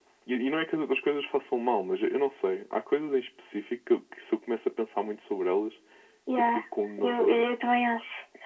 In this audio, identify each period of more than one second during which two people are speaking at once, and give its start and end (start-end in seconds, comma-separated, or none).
none